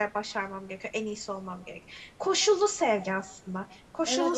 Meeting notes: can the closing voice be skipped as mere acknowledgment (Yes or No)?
No